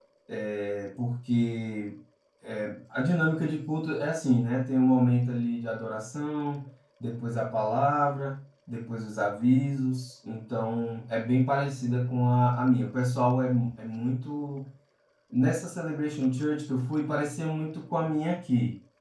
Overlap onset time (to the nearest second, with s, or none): none